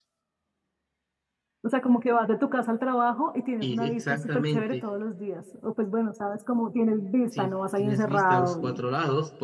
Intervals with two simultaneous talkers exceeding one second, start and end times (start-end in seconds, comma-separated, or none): 3.6-4.8, 7.3-8.8